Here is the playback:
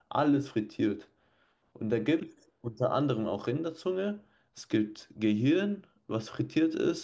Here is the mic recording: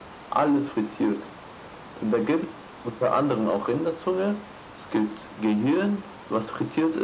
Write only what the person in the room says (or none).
none